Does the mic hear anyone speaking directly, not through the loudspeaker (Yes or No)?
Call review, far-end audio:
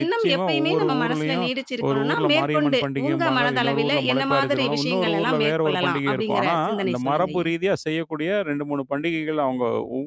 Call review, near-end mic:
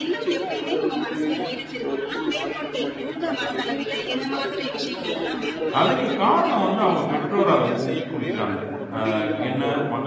Yes